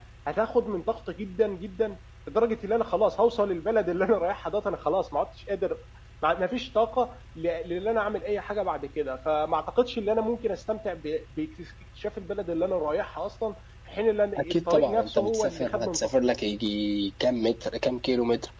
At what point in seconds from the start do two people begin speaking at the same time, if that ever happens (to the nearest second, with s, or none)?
14 s